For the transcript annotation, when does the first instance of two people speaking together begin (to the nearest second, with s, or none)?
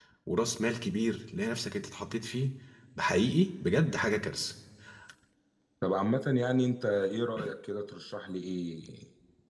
none